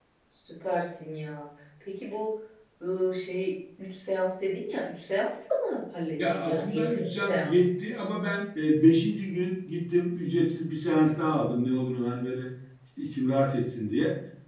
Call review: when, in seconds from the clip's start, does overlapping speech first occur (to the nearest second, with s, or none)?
6 s